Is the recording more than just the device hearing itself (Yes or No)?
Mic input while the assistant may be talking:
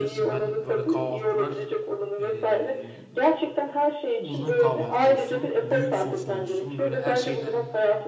Yes